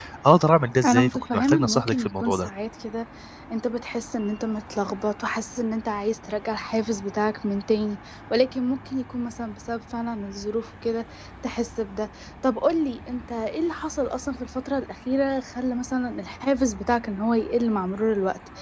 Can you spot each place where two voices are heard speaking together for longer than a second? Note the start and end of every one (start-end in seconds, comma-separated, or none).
0.8-2.5